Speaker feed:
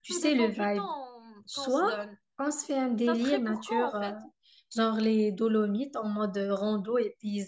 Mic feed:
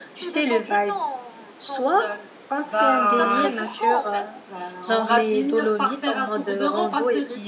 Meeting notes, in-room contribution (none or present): present